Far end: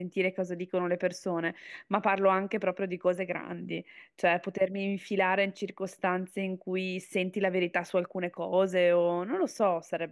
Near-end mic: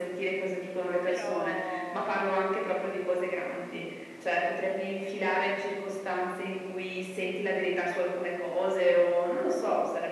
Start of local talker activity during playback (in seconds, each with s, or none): 1.0 s